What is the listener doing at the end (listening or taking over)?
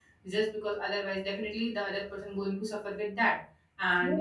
listening